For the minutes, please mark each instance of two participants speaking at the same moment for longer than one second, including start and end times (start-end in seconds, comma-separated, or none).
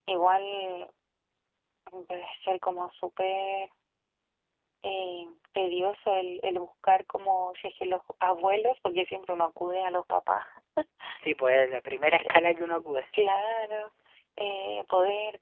none